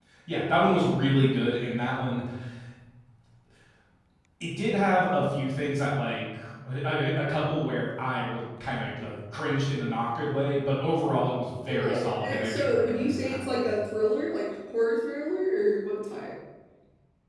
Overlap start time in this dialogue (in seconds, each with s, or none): 11.7 s